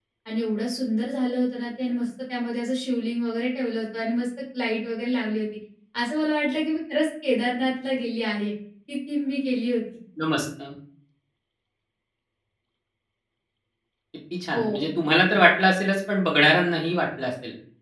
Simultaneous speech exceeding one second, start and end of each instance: none

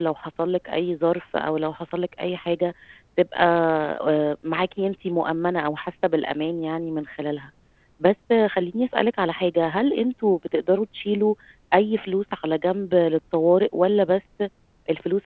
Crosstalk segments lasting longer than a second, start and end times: none

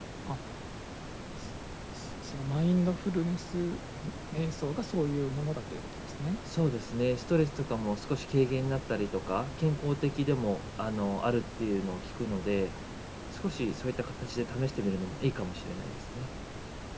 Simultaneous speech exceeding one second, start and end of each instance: none

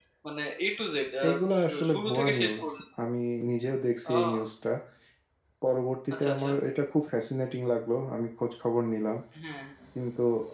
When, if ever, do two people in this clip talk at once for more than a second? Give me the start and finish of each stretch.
1.3-2.7

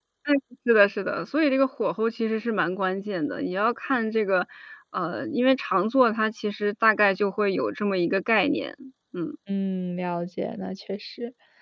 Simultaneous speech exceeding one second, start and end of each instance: none

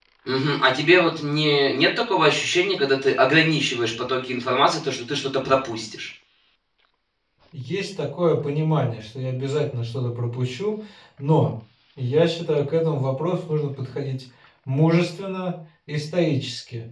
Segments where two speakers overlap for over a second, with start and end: none

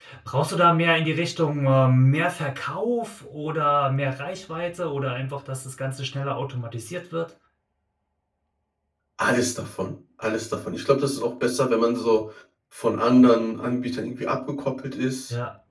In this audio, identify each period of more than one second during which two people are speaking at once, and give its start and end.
none

